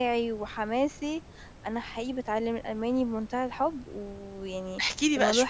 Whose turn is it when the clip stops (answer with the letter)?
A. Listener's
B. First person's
A